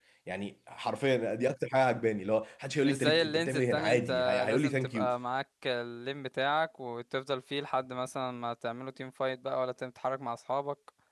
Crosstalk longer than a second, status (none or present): present